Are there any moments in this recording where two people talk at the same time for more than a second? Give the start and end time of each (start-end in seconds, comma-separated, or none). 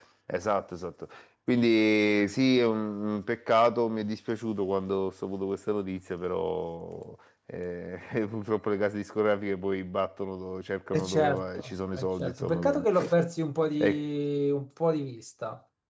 10.9-12.8